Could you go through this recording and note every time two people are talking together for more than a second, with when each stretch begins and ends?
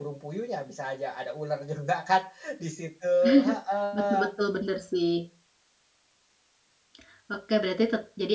none

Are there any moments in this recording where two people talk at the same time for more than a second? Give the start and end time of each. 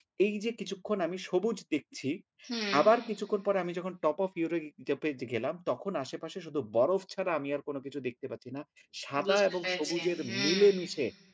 9.2-10.7

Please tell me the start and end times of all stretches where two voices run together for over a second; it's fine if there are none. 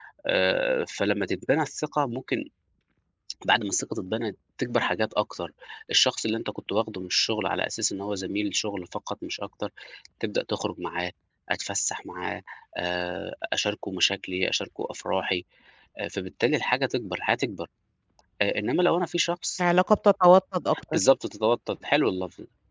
none

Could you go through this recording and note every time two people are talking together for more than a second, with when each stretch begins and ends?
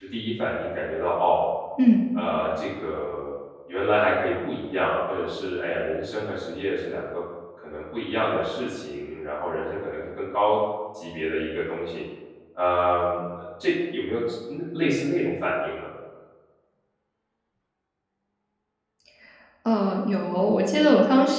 none

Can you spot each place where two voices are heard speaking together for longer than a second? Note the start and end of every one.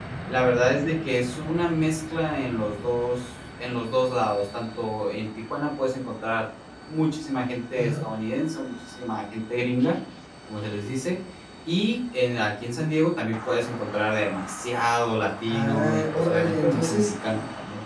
15.5-17.0

